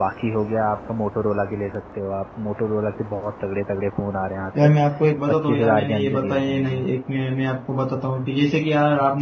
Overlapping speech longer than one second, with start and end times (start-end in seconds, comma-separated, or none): 5.3-6.8